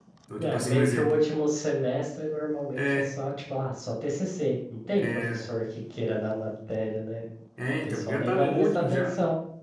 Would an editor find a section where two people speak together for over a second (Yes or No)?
Yes